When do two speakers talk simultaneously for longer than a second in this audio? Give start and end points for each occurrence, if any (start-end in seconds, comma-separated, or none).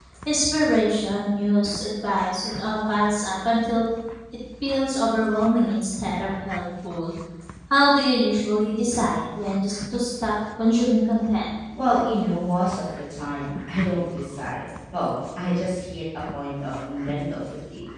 none